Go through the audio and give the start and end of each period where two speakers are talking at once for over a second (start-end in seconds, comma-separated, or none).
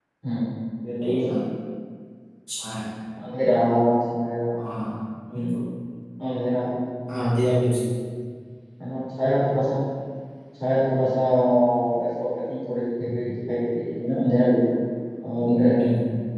none